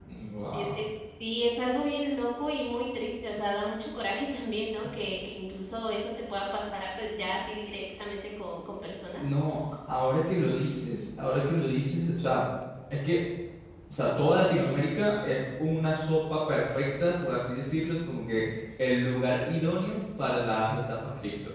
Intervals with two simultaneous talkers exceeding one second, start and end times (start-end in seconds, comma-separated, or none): none